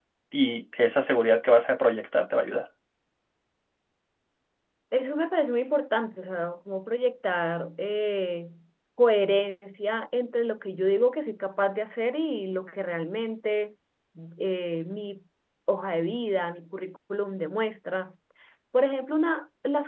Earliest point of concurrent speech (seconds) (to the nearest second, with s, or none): none